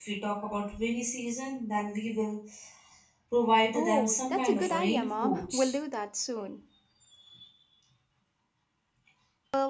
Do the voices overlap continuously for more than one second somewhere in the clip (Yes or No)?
Yes